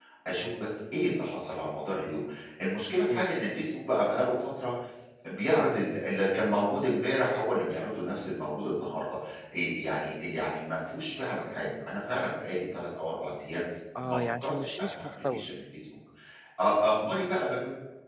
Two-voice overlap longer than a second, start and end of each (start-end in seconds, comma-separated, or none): 14.0-15.5